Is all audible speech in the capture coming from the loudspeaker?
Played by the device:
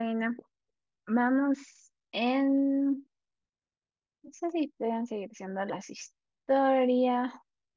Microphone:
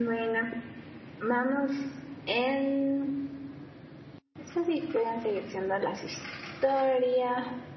Yes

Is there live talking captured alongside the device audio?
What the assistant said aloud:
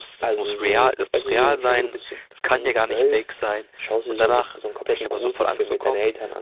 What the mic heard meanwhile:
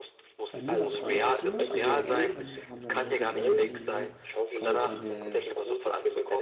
Yes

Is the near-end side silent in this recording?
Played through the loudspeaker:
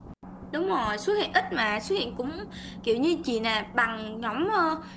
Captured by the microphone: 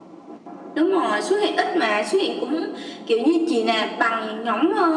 Yes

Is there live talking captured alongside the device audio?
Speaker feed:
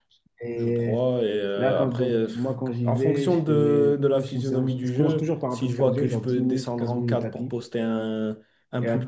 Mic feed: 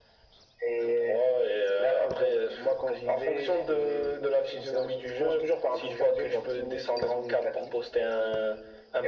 No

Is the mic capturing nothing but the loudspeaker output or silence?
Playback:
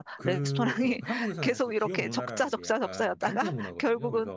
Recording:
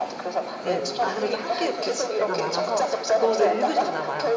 No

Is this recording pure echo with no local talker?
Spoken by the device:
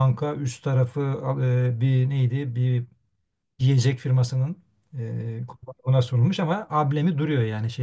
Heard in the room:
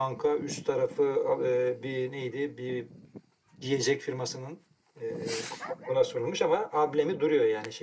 Yes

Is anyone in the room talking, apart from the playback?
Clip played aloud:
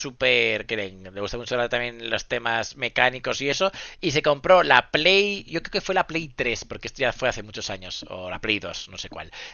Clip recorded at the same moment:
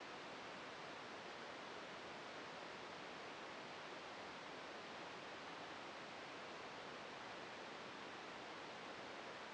No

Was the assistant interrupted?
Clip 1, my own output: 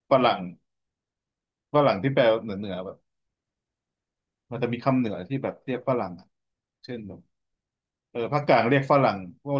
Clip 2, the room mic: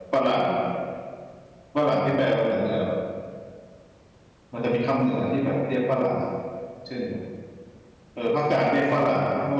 No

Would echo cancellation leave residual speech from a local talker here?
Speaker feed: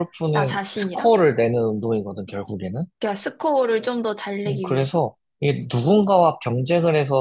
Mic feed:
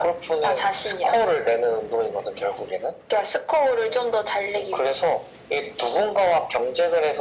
No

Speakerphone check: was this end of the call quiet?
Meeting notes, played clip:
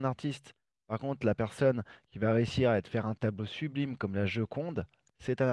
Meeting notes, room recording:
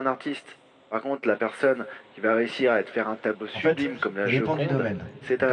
No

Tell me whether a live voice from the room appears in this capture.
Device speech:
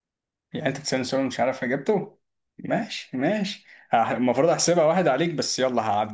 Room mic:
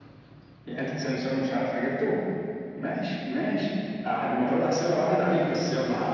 No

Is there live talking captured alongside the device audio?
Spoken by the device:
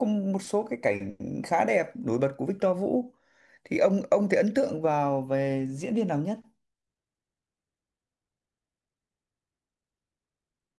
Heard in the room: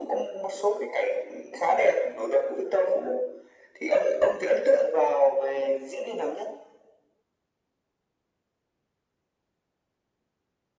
No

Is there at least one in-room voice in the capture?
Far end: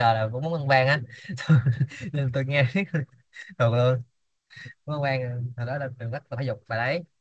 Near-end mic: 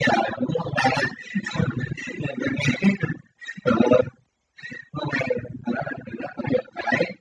No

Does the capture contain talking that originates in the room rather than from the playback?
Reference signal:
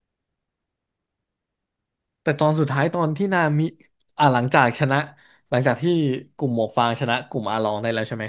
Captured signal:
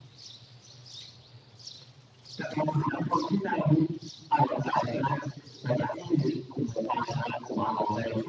No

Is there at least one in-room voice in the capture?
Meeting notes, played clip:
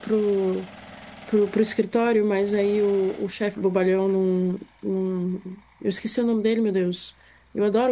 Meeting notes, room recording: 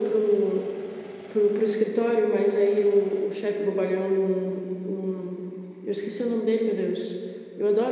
No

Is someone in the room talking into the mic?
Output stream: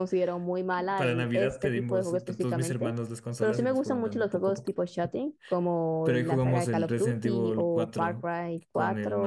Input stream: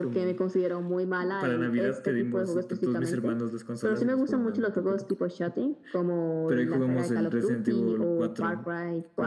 No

